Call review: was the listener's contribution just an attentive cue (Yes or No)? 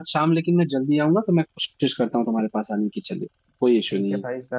No